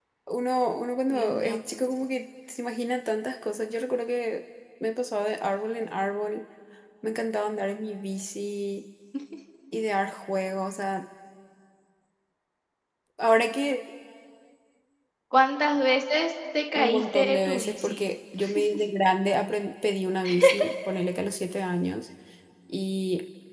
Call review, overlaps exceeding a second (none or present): present